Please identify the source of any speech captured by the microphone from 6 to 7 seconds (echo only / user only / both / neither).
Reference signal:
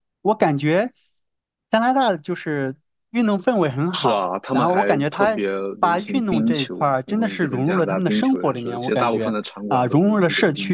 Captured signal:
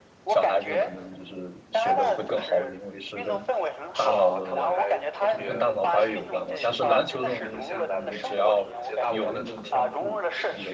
both